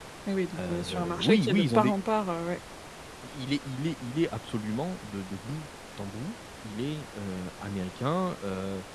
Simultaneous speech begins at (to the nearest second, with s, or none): 1 s